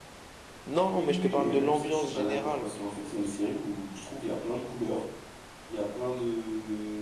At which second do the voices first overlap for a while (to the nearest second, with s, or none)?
1 s